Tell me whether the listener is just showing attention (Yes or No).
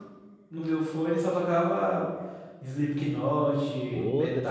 No